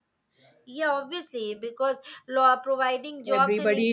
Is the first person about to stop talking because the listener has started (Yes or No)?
Yes